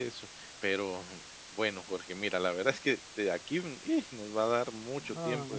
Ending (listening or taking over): listening